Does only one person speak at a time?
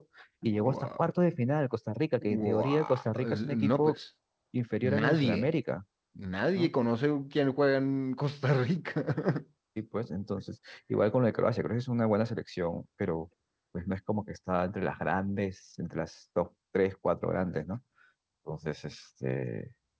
No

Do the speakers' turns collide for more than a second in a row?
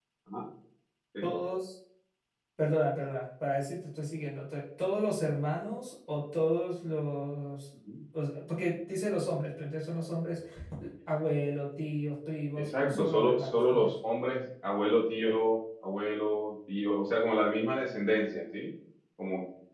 Yes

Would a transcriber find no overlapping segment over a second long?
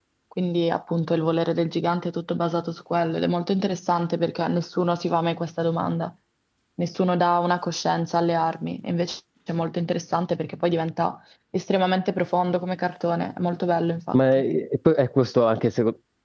Yes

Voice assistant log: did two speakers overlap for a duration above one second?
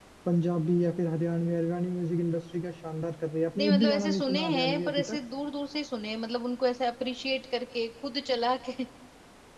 Yes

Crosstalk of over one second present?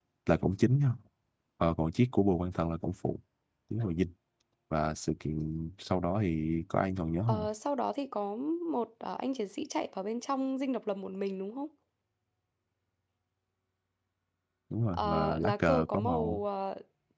Yes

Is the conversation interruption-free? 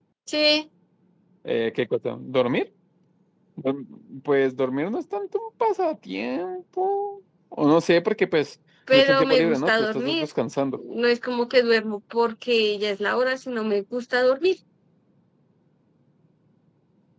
No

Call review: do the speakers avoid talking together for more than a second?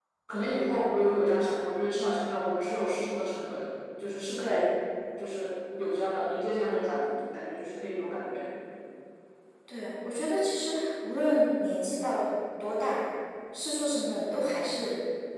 Yes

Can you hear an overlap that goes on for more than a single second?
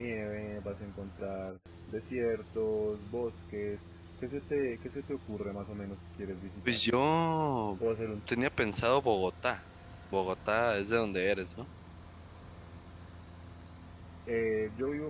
No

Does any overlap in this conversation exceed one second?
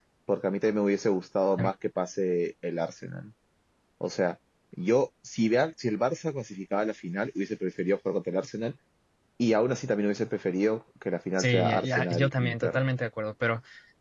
Yes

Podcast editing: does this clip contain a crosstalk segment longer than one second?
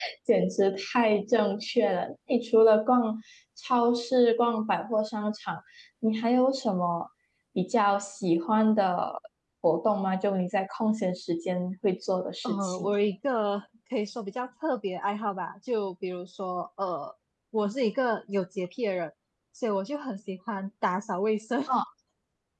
No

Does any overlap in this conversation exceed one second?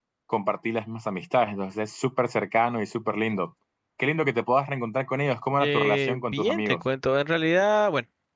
Yes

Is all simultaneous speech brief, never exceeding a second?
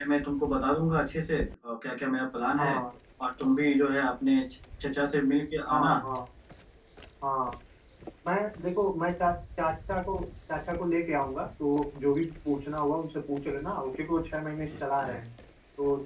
Yes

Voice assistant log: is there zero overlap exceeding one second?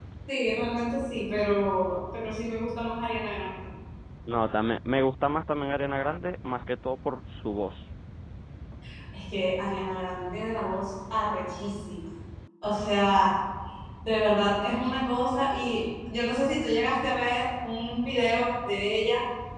Yes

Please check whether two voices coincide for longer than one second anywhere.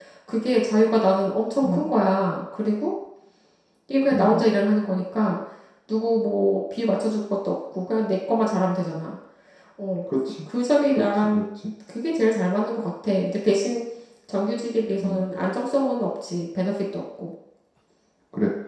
No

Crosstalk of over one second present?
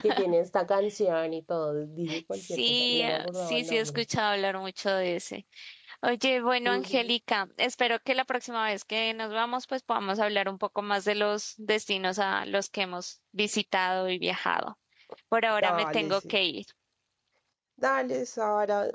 Yes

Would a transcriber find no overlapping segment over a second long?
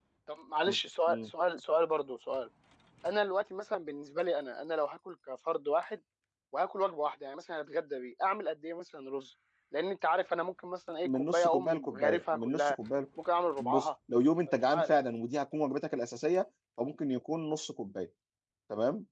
No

